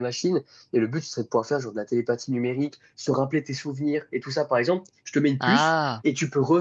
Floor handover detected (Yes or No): No